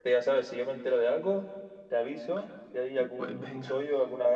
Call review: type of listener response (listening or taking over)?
listening